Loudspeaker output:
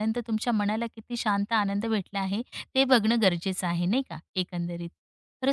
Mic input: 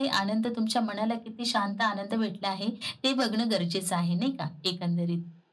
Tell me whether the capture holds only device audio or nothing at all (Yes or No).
Yes